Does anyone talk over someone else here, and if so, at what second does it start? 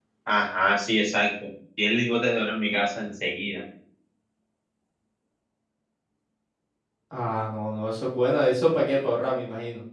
none

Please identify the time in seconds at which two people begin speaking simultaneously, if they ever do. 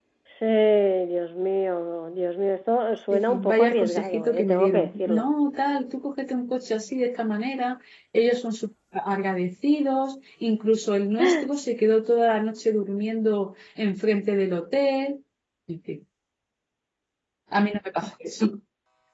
3 s

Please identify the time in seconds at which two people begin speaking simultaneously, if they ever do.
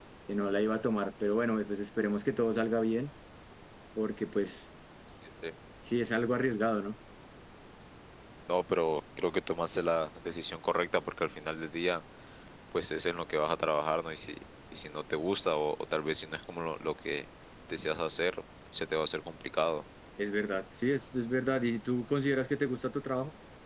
none

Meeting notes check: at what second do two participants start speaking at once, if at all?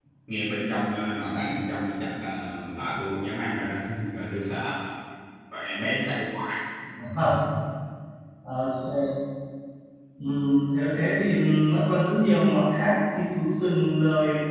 none

